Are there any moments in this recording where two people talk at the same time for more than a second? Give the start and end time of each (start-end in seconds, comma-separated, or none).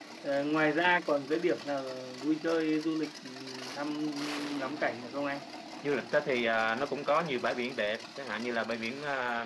none